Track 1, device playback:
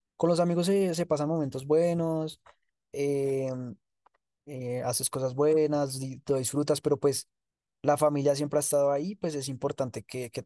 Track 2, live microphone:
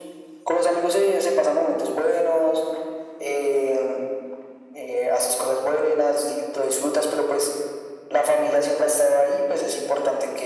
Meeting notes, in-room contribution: none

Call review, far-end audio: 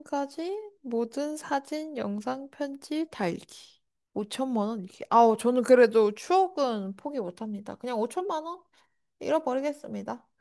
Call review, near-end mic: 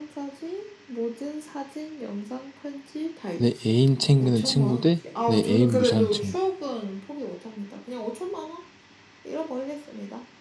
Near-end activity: present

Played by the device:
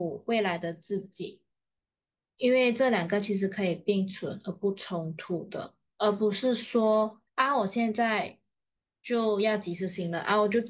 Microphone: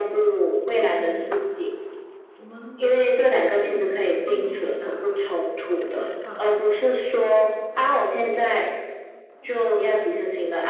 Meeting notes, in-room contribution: present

